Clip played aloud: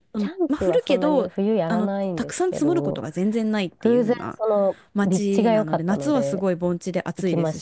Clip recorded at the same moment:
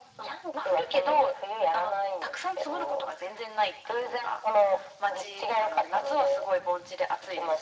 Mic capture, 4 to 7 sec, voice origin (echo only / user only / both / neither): echo only